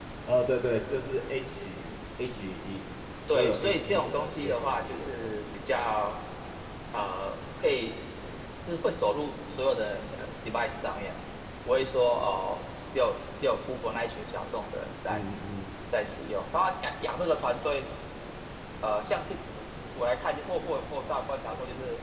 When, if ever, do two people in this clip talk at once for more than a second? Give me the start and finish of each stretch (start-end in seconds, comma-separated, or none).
3.3-5.3